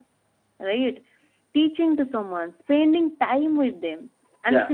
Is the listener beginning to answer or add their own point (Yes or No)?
No